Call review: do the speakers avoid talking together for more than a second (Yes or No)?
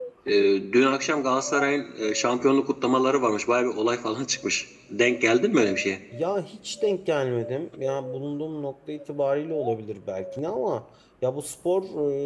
Yes